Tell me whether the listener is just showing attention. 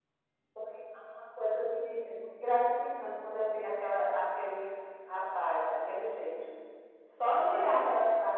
Yes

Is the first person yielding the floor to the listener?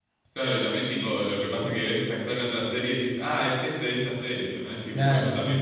Yes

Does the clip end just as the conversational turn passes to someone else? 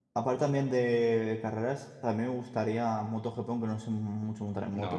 Yes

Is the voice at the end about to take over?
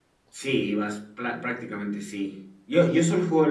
No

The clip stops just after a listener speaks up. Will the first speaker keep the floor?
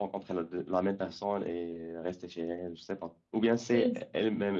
Yes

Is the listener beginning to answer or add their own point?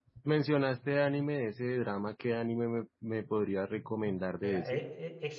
Yes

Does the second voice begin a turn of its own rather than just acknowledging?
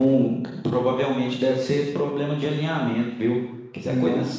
No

